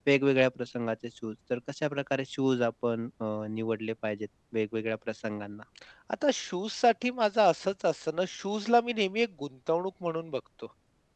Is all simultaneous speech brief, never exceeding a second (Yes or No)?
Yes